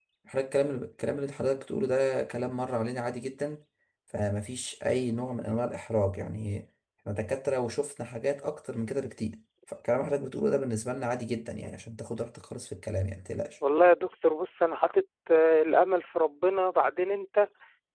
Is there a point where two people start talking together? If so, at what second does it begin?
none

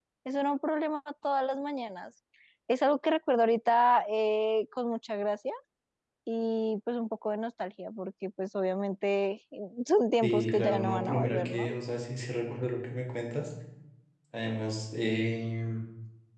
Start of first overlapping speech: 10.2 s

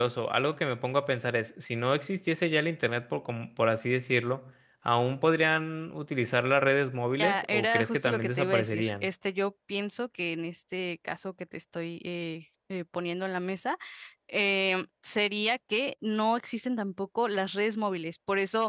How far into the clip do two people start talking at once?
7.2 s

